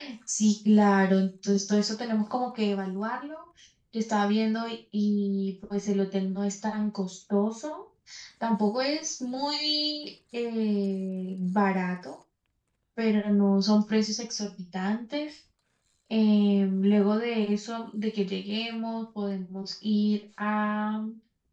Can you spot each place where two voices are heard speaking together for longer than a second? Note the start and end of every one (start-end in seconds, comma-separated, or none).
none